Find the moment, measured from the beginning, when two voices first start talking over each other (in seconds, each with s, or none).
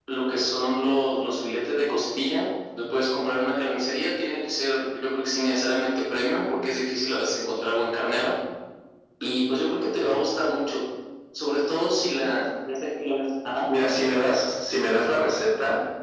none